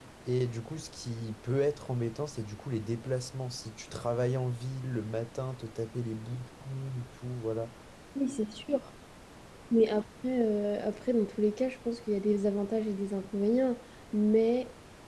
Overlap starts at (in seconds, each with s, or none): none